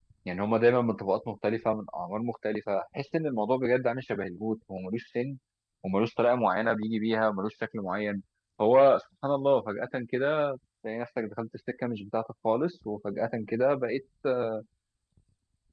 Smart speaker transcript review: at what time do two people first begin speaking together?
none

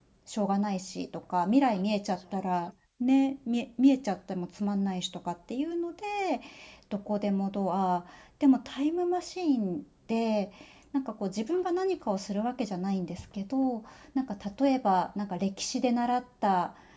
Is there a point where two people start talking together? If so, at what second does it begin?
none

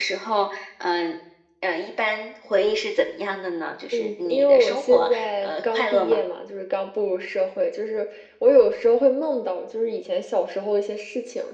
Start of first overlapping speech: 3.9 s

